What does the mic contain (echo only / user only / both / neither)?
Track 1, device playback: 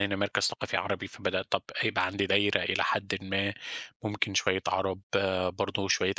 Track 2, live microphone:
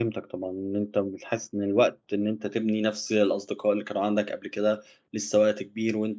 user only